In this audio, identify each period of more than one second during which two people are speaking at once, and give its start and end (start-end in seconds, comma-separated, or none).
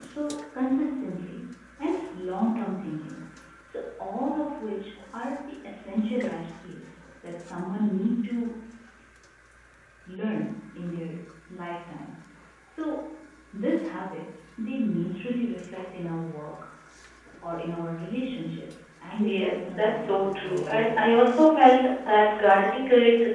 19.2-21.3